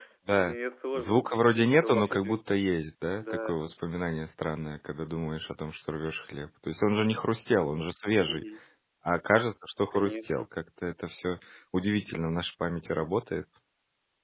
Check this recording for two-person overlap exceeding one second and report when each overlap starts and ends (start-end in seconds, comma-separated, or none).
0.9-2.4